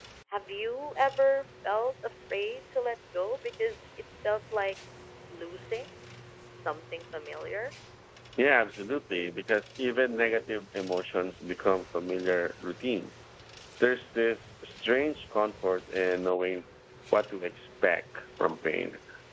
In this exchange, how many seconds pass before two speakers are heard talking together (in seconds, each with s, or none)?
none